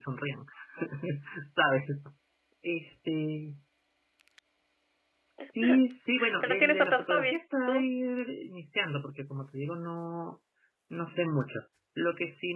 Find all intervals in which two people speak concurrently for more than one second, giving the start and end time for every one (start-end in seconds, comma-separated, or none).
6.4-7.8